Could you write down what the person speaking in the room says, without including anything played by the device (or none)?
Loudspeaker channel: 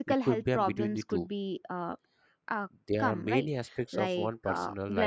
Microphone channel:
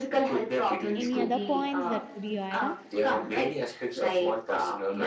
Any other points that could you add on?